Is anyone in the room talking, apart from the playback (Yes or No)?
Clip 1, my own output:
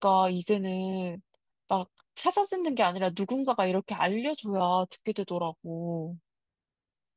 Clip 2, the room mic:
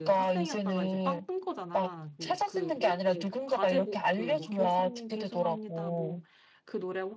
Yes